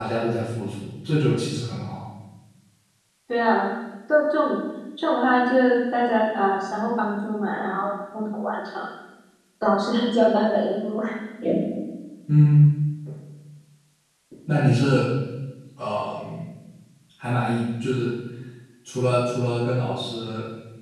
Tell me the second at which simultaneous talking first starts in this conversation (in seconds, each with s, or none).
none